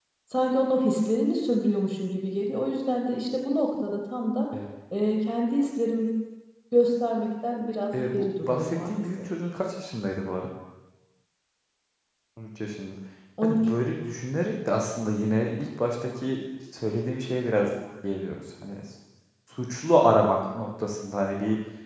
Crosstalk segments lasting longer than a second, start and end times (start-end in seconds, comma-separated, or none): 7.9-9.2